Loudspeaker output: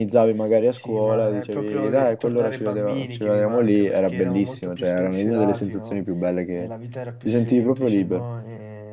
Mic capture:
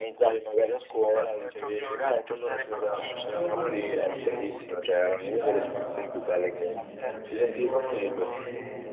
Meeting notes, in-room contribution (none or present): present